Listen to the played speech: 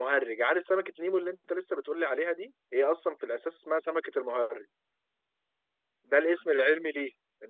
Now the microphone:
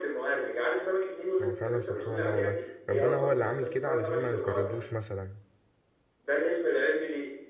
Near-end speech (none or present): present